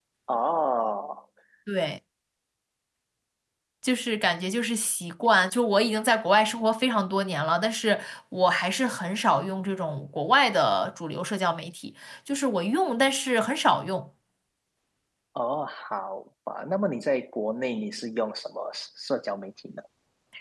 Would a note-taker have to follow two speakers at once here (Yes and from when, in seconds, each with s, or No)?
No